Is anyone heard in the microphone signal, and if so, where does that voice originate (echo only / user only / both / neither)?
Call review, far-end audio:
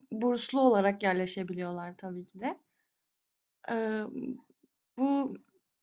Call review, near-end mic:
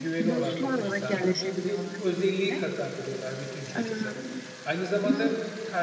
both